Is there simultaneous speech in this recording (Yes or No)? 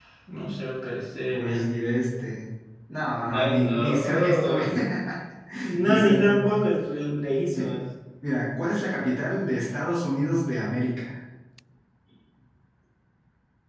Yes